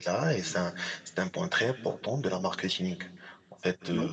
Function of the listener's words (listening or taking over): listening